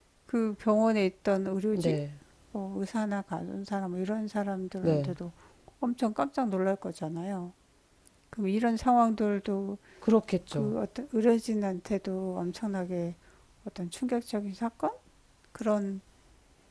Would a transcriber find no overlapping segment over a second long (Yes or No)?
Yes